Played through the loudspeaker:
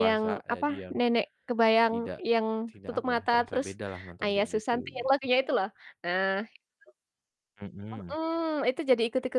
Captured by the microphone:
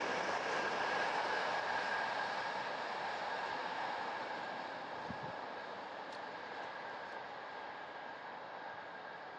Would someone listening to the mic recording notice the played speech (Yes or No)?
No